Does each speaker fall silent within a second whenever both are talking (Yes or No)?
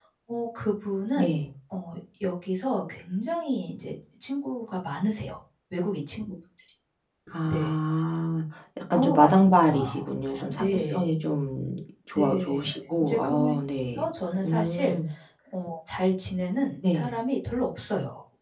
No